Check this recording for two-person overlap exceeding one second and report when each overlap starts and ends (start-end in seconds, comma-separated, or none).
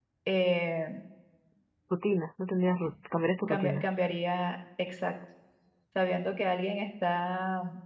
none